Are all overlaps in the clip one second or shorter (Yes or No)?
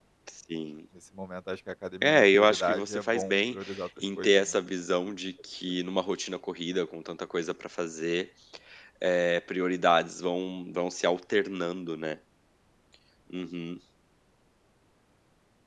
No